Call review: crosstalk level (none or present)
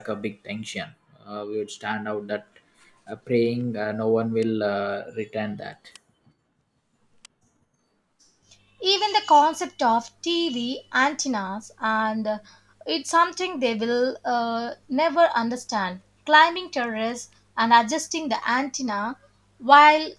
none